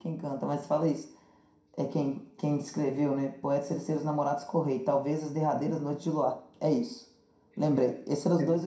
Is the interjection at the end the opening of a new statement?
No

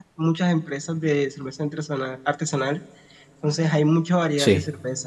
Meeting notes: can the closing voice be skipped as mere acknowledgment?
Yes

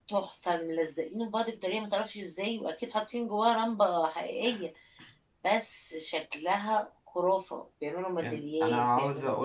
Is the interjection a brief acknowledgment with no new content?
No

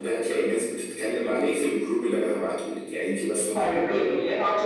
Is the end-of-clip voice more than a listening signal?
Yes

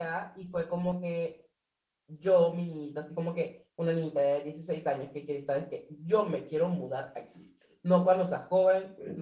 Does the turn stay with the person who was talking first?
Yes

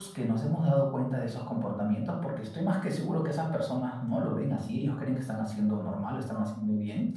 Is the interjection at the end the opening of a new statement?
No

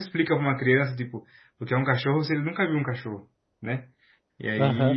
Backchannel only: No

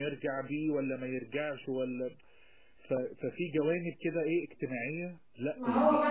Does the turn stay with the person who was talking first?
No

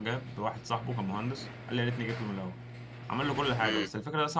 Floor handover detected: No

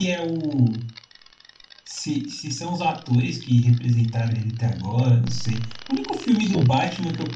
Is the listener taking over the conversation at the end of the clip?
No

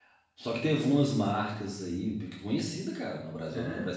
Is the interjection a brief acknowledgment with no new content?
Yes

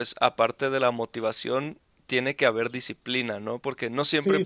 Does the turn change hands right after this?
Yes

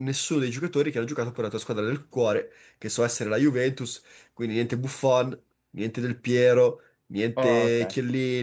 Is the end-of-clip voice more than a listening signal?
No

